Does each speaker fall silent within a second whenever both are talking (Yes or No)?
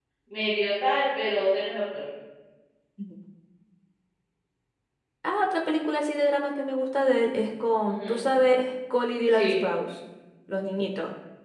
Yes